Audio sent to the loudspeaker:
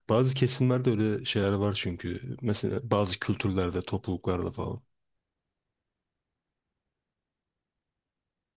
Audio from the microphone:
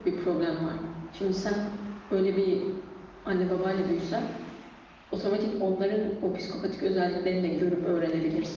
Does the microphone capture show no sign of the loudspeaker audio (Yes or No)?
Yes